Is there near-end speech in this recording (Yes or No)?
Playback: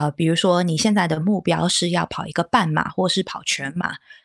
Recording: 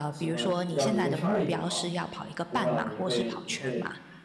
Yes